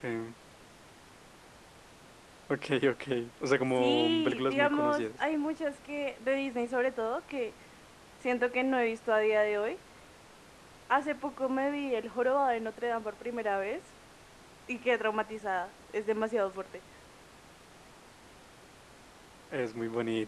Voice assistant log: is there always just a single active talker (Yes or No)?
No